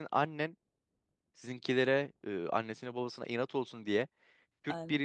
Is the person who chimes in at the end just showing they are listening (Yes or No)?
Yes